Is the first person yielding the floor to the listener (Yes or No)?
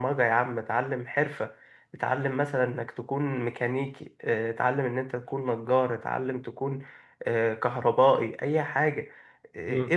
No